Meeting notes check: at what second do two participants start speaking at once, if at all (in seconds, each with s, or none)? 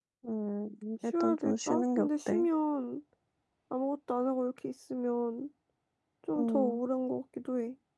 1.2 s